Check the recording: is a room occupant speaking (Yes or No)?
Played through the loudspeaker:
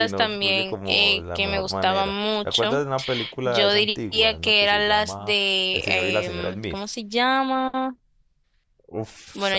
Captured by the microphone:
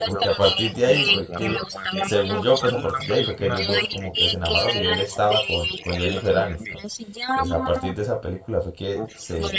Yes